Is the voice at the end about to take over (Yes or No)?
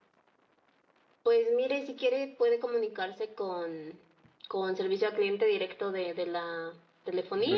Yes